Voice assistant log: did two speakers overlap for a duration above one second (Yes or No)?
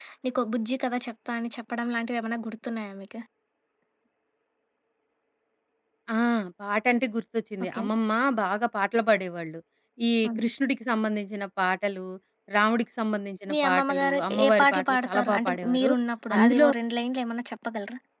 Yes